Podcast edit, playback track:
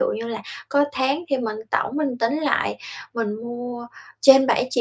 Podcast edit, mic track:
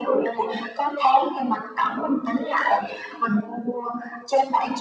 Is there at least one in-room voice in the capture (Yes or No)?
No